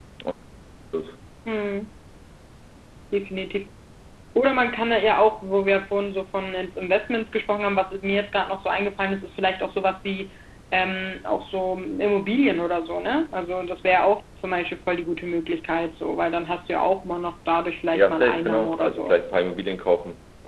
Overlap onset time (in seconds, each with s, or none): 17.9 s